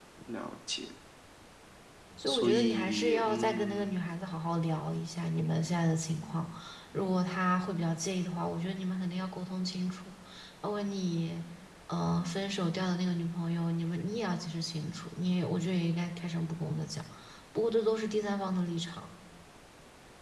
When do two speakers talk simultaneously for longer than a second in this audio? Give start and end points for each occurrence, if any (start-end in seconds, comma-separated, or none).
2.3-3.9